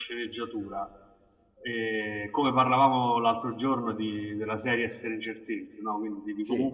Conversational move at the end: listening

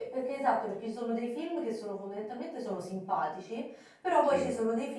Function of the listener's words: listening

